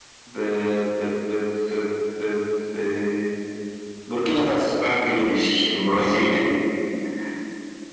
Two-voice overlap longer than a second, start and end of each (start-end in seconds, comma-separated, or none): none